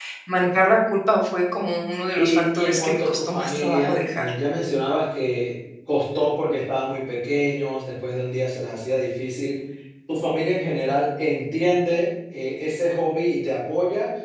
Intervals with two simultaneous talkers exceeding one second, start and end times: 2.2-4.3

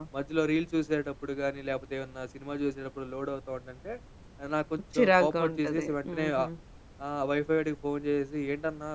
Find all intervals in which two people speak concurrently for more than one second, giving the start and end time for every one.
5.0-6.5

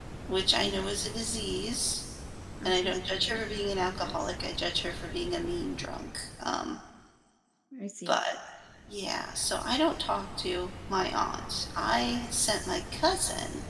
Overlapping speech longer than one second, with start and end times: 2.6-4.3

